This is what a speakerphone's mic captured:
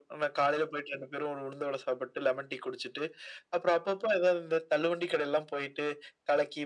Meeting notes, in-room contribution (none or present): none